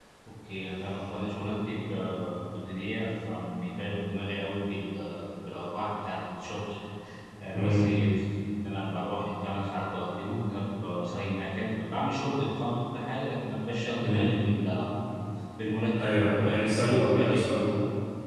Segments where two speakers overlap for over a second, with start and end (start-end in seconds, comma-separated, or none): 15.9-17.8